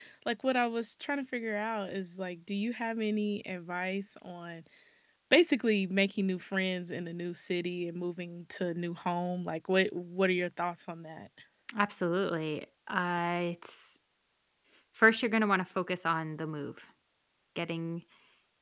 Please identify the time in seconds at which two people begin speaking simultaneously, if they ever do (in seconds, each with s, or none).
none